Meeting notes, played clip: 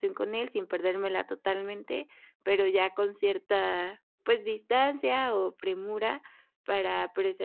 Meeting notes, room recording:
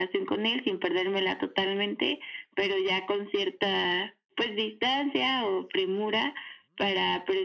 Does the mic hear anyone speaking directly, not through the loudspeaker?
No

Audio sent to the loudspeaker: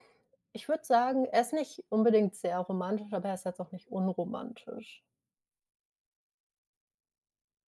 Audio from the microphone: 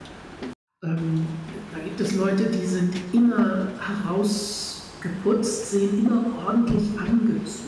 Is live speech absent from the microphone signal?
No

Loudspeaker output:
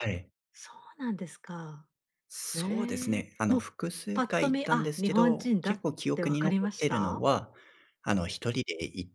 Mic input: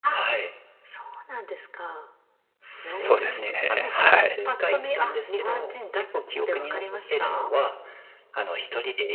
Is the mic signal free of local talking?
No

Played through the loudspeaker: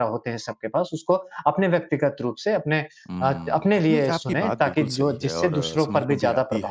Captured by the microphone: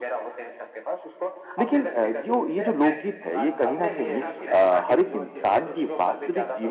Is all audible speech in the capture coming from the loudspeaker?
No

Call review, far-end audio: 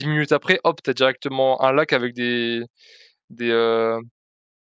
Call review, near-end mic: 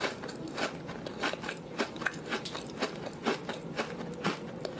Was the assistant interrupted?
No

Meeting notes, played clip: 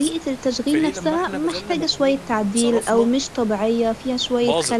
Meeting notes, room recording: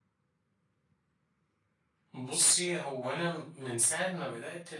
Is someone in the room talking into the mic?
Yes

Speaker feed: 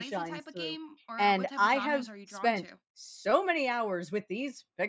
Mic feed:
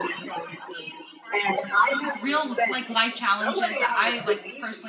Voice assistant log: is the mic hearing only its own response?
No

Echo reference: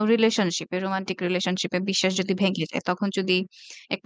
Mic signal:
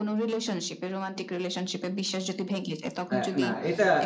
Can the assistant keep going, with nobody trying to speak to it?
No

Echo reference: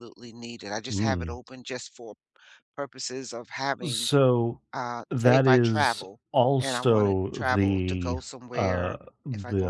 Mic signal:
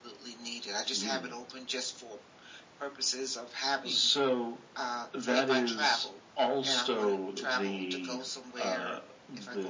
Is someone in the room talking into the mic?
No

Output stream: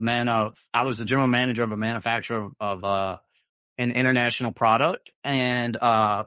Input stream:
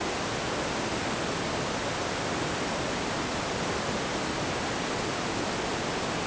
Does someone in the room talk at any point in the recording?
No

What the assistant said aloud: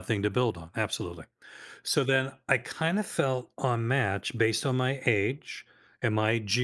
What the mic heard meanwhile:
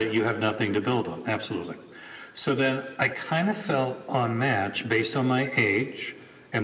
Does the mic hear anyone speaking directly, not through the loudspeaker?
No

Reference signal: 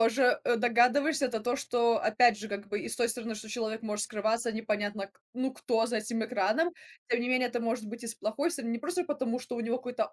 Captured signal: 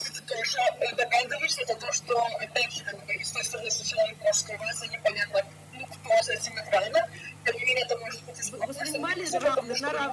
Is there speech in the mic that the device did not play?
Yes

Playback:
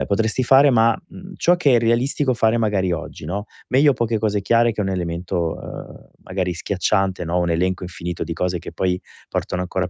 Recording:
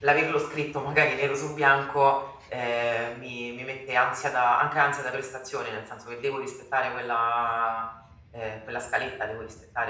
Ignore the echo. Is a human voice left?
Yes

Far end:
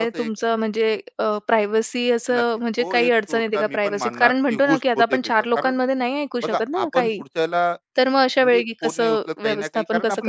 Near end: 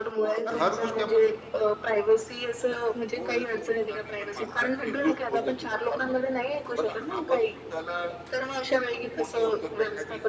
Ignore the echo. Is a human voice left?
Yes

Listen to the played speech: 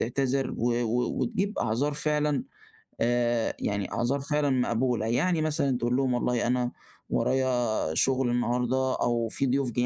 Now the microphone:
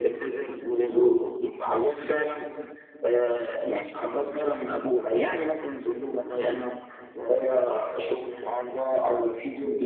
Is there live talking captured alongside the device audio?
No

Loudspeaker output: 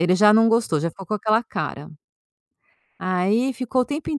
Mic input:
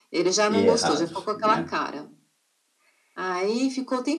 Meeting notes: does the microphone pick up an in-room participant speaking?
Yes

